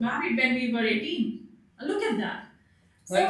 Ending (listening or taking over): taking over